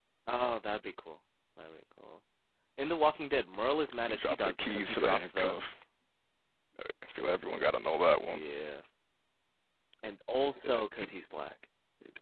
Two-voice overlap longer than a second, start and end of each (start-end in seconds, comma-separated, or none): 4.1-5.6